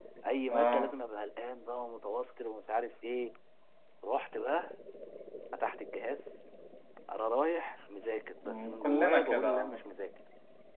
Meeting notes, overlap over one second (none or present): present